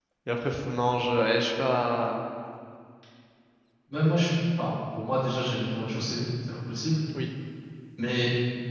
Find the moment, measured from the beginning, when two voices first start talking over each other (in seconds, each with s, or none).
none